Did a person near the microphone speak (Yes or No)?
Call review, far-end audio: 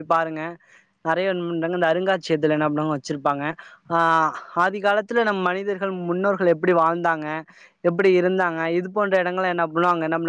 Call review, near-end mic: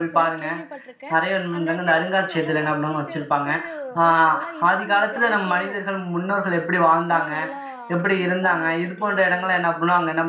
Yes